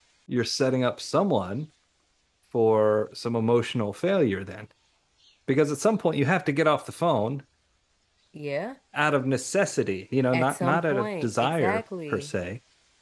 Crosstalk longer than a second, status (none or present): present